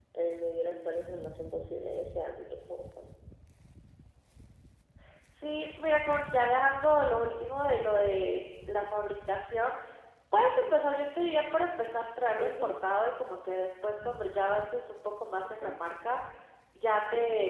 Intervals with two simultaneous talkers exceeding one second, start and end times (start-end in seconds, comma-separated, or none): none